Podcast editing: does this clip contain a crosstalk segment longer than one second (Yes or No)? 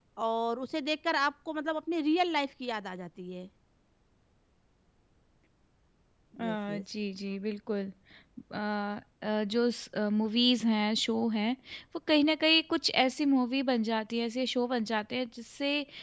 No